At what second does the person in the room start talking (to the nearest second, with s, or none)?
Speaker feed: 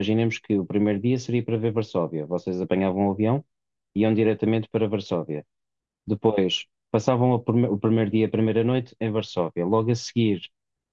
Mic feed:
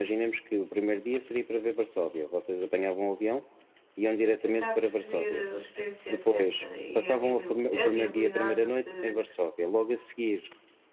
4 s